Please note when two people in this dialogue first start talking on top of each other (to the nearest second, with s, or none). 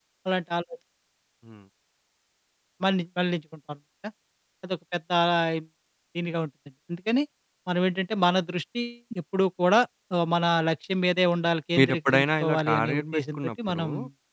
12 s